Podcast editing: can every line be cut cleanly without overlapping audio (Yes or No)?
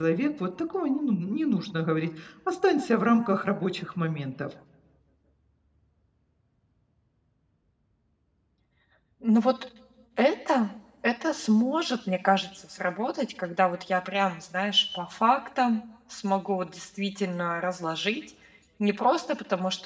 Yes